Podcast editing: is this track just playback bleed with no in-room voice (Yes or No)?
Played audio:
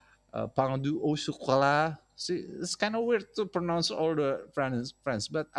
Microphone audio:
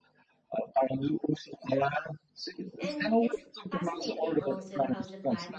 No